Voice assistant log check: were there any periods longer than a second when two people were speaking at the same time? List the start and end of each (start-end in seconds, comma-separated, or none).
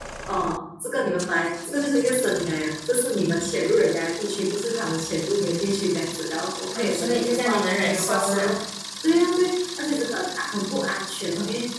6.7-8.6